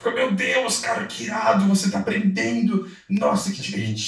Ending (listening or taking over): taking over